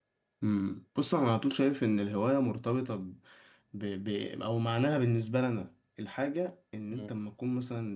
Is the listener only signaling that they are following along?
Yes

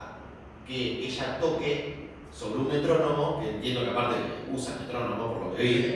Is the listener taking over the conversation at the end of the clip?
No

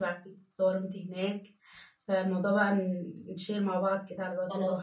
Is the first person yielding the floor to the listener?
Yes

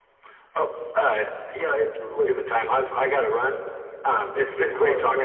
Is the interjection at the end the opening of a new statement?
Yes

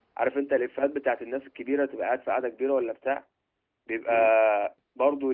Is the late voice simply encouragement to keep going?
Yes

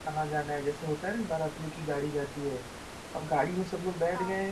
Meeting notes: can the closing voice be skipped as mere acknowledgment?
Yes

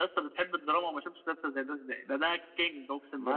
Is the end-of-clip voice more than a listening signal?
Yes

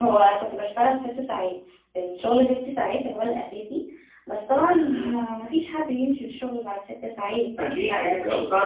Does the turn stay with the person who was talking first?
No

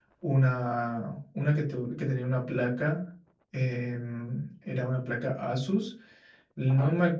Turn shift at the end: No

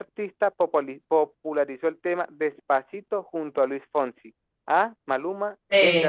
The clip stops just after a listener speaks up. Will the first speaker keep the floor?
Yes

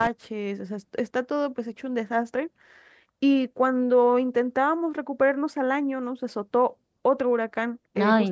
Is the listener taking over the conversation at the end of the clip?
No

